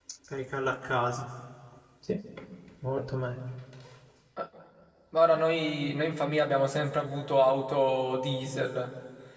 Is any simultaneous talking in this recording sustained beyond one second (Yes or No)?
No